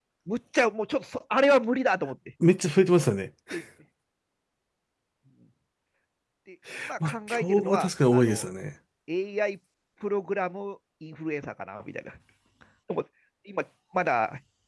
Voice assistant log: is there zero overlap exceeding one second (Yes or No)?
No